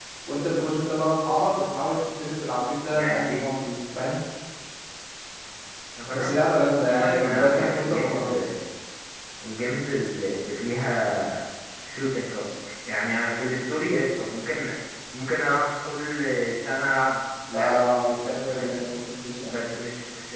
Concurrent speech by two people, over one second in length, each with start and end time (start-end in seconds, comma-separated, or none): 6.8-8.2, 17.6-18.8